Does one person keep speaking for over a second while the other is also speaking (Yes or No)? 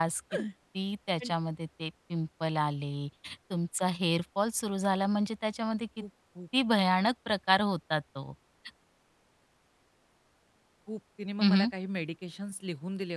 No